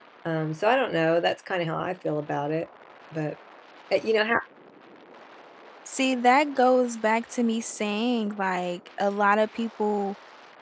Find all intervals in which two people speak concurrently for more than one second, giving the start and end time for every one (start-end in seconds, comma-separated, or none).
none